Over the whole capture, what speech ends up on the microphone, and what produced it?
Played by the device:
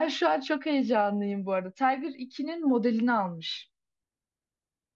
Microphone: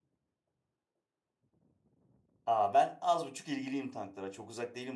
user only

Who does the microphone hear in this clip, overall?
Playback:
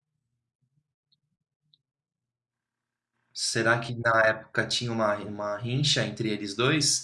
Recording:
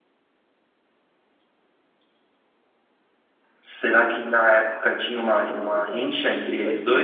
both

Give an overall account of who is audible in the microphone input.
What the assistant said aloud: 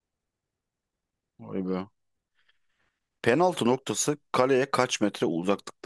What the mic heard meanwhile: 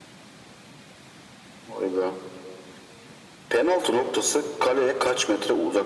echo only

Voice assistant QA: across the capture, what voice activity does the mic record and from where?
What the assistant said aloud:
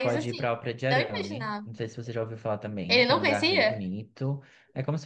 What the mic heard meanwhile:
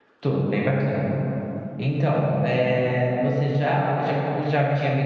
user only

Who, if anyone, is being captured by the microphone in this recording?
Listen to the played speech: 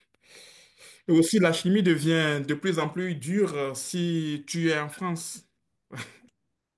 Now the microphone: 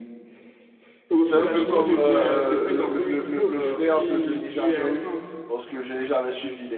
both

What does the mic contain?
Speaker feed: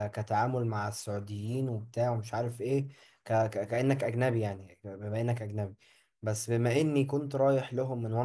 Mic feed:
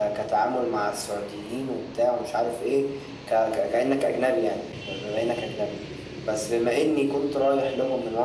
echo only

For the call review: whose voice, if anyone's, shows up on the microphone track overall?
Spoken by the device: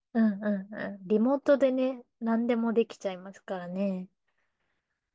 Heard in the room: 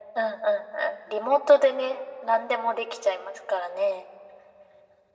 echo only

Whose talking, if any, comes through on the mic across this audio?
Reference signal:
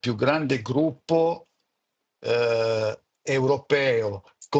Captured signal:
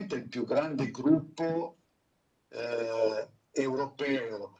echo only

